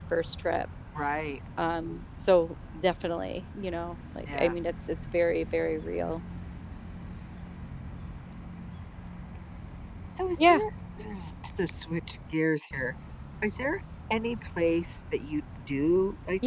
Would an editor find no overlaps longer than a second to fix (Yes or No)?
Yes